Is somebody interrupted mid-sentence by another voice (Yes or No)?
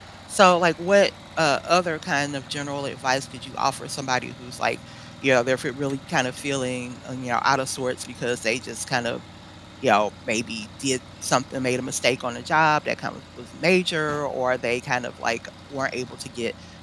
No